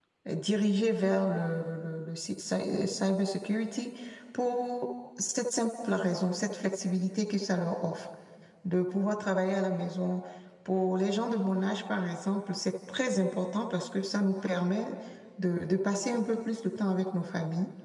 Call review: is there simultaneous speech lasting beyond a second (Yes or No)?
No